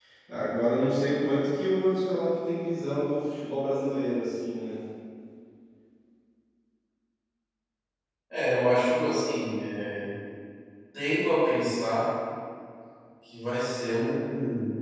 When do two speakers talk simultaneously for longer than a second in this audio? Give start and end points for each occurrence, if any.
none

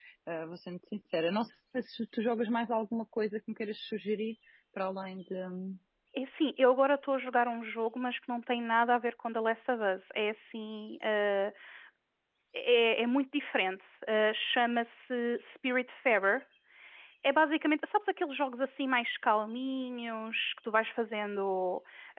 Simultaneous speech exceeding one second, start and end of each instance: none

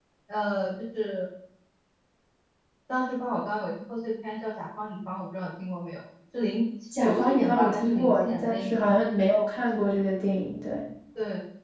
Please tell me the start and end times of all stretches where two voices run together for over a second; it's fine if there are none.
7.0-8.9

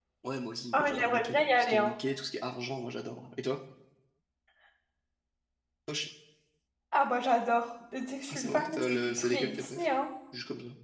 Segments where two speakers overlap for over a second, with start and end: 0.7-1.9, 8.3-9.9

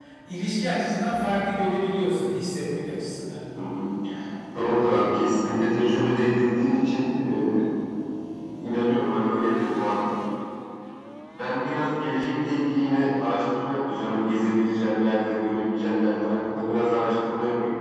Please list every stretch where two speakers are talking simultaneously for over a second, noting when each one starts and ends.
none

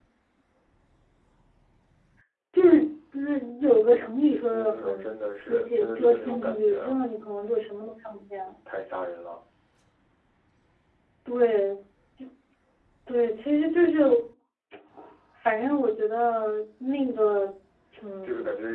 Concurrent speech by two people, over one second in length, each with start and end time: 4.5-7.0

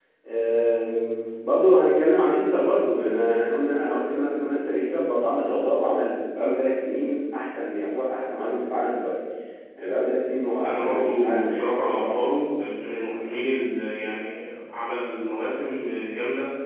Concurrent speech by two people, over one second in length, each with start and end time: 10.7-12.2

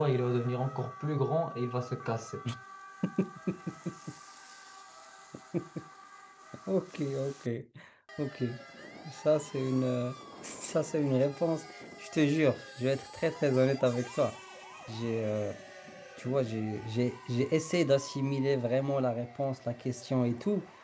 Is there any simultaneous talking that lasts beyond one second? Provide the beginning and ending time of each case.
none

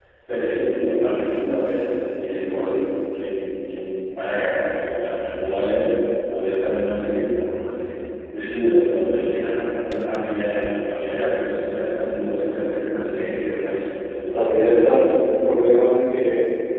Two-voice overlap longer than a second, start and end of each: none

